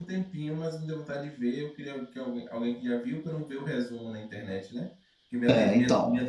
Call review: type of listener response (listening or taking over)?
listening